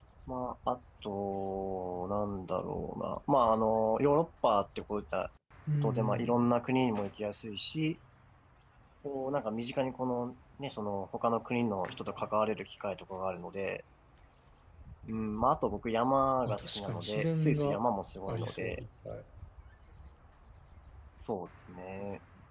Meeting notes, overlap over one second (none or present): present